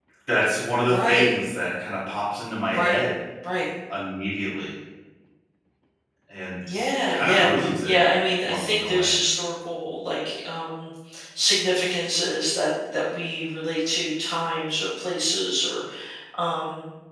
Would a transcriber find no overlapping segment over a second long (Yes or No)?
No